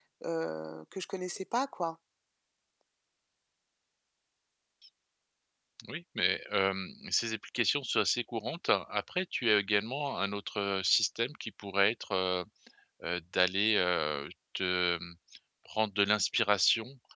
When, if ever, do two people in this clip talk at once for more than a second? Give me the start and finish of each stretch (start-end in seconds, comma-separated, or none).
none